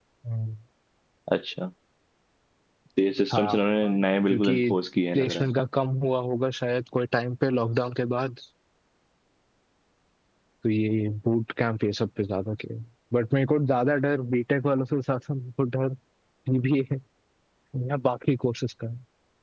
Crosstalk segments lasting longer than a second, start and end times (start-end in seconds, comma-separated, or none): 3.3-4.5